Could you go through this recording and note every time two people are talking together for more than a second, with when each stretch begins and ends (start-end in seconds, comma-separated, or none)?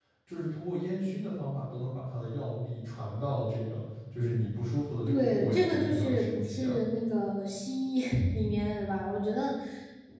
5.1-6.8